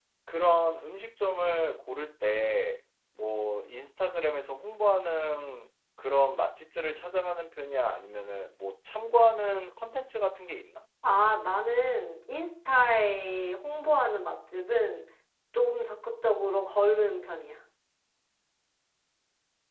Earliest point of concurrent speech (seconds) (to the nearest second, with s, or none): none